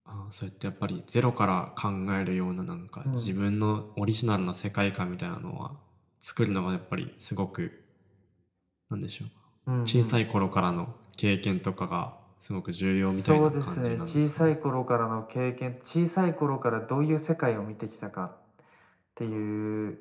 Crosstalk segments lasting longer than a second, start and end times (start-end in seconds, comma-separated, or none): 13.0-14.5